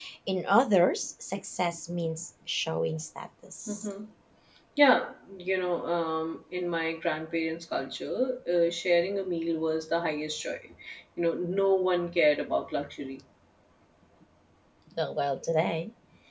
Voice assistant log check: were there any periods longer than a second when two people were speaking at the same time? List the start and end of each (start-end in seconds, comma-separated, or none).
none